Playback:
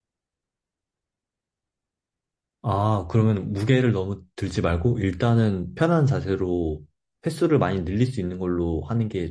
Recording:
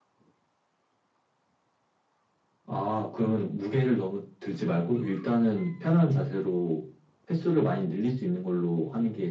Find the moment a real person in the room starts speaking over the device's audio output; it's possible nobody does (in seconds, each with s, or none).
none